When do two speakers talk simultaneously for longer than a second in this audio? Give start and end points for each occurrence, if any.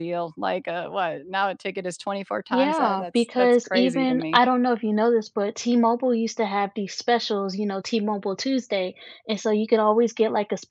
2.5-4.4

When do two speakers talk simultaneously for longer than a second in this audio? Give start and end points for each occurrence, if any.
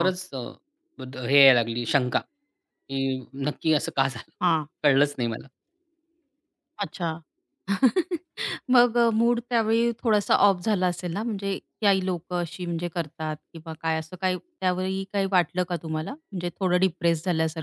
none

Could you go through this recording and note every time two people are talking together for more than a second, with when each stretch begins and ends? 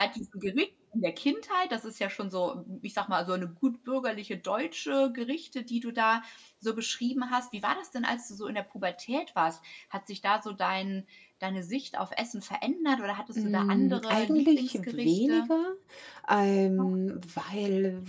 13.3-15.5

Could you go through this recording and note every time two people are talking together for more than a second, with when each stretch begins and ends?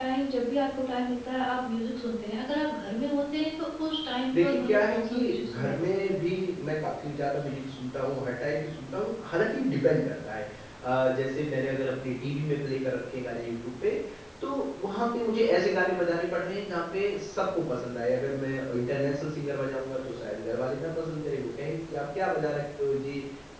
4.4-6.4

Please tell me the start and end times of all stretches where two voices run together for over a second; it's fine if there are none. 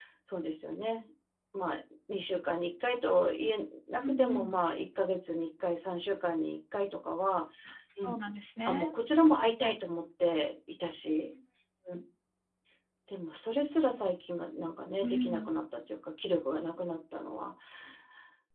none

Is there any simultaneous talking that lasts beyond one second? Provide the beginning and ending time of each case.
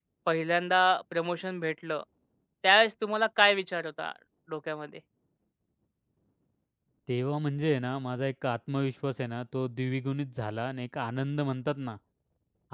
none

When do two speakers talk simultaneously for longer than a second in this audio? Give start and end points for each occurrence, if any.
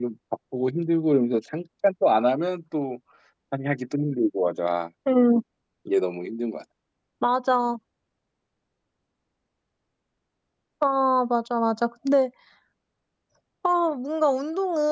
none

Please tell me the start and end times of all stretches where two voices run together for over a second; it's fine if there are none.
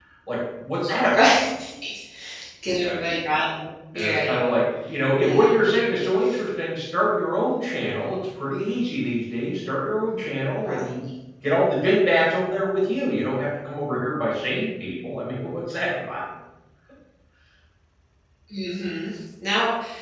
none

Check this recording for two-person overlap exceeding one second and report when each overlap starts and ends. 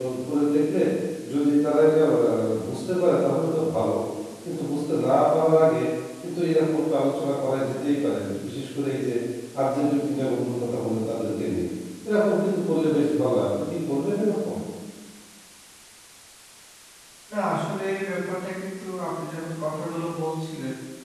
none

